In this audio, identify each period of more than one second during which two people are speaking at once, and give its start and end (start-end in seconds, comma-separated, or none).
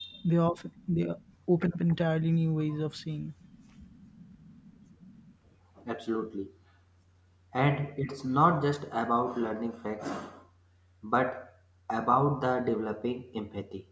none